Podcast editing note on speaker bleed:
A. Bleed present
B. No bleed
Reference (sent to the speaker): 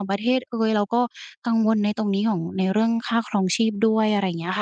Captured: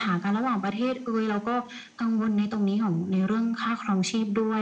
A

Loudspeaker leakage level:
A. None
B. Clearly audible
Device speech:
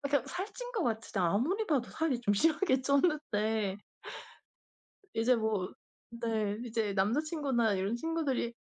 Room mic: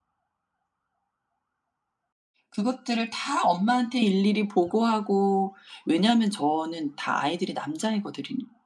A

